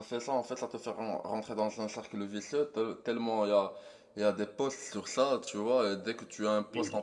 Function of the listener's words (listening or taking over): listening